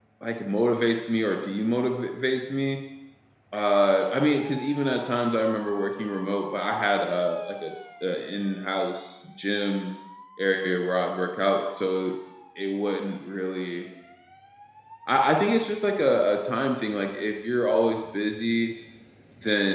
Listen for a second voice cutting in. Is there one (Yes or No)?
No